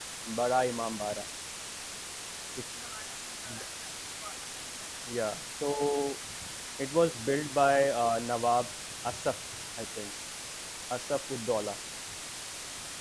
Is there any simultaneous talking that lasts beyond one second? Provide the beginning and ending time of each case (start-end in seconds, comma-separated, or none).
none